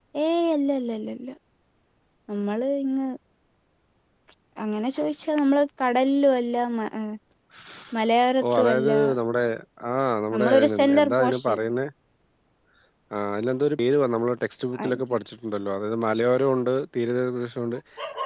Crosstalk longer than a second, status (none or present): present